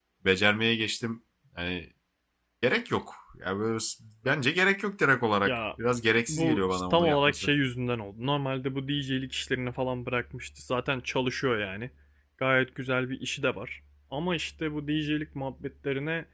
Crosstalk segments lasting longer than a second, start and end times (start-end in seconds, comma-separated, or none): 6.3-7.5